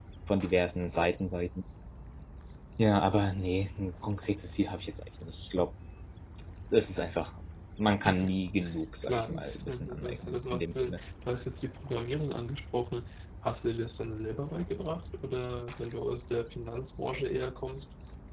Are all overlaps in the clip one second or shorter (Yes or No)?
No